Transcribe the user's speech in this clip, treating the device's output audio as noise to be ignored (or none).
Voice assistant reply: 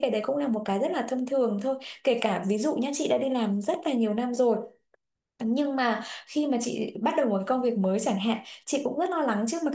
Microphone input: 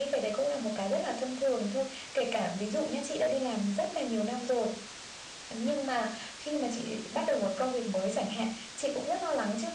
none